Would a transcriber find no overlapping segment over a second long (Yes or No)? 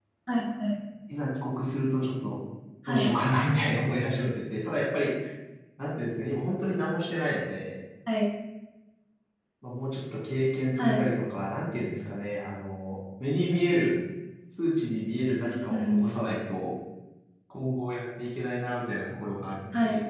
Yes